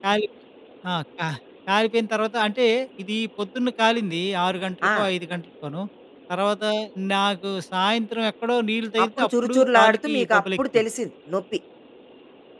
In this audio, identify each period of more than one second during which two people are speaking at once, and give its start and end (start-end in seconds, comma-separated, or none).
9.0-10.8